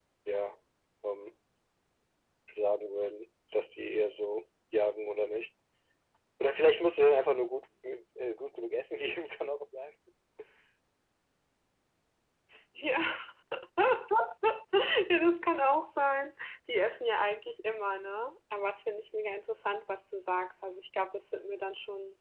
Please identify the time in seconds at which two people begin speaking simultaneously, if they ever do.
none

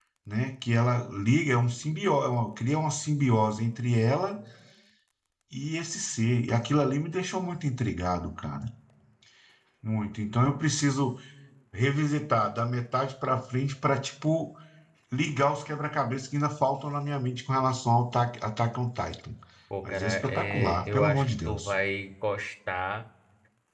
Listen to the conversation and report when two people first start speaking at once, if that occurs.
19.9 s

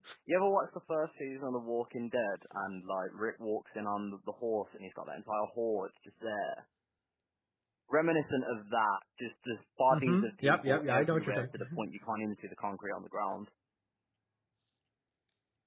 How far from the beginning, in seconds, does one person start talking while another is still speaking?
9.9 s

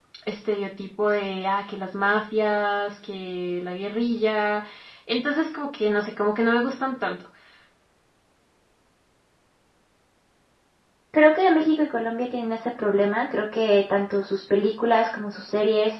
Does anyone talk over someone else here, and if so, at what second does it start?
none

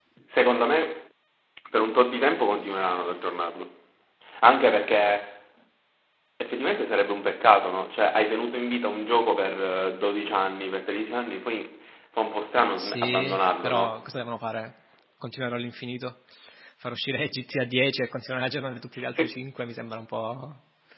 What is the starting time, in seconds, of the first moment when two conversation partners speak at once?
12.8 s

